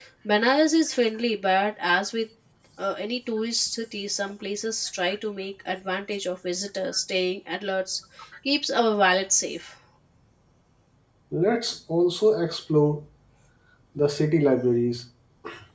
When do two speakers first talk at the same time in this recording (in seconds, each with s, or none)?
none